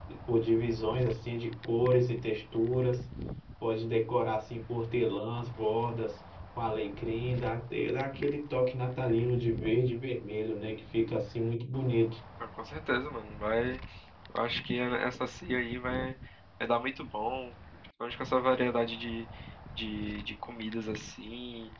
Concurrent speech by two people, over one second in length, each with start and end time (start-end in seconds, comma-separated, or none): none